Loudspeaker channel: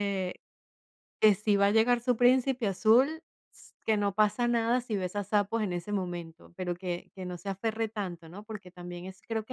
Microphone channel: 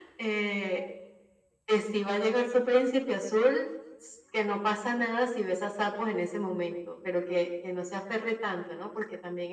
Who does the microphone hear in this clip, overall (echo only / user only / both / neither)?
echo only